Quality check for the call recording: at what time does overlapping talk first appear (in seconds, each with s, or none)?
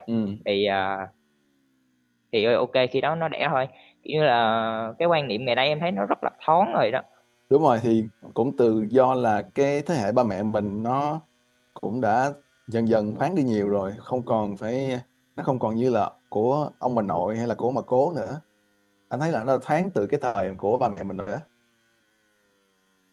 none